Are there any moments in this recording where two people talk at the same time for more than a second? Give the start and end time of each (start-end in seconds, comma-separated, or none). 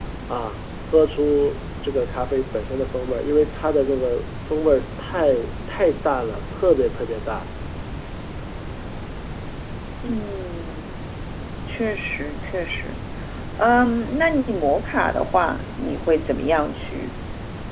none